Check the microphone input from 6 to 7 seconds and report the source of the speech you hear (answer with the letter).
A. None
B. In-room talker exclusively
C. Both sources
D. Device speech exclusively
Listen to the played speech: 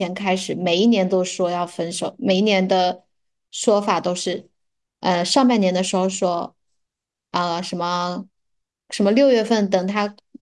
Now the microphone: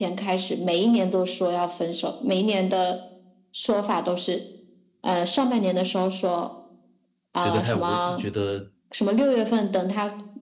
D